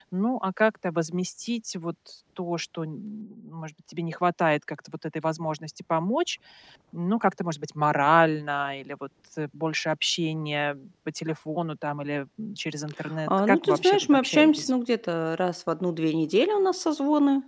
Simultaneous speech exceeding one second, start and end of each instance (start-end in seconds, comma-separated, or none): 13.3-14.7